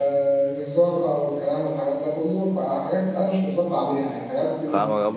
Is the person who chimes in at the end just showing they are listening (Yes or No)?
No